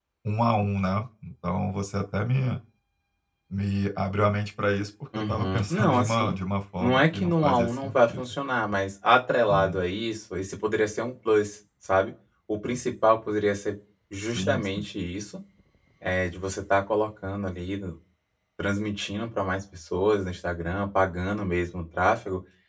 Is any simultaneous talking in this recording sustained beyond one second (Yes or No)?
Yes